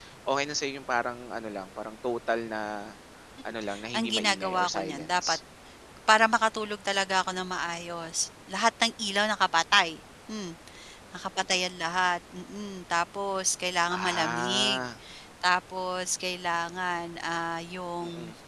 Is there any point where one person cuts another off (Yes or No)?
Yes